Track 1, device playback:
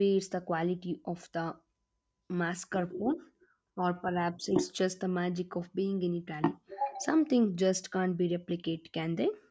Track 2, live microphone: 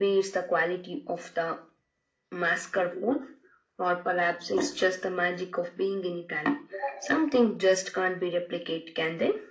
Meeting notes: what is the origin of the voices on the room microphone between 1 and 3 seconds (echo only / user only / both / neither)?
echo only